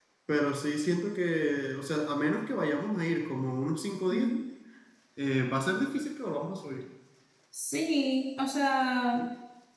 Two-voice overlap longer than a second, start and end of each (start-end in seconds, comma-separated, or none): none